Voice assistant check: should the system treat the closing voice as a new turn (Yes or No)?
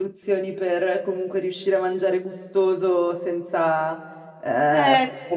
No